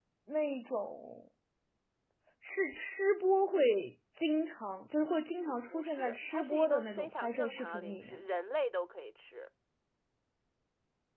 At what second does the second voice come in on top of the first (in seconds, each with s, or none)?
5.5 s